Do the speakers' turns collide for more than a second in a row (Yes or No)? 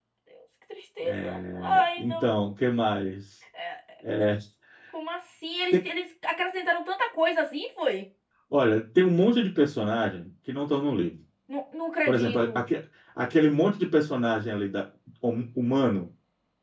Yes